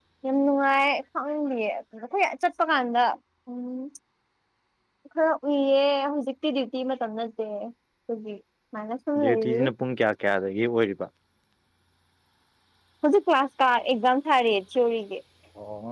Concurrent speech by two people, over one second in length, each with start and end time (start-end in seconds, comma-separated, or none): none